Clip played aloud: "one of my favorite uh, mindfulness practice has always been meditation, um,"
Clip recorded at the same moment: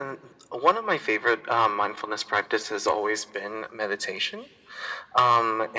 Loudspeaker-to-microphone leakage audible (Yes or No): Yes